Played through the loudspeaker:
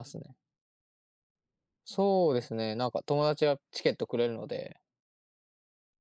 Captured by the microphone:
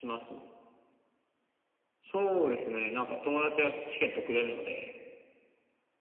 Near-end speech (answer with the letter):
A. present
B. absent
B